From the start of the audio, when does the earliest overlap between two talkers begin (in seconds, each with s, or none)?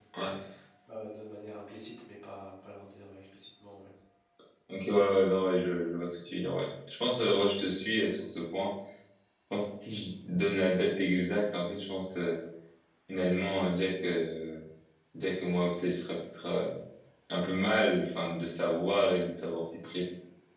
none